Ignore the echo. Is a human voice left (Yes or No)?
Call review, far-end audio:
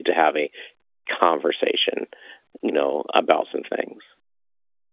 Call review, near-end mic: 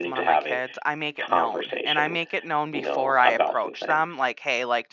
Yes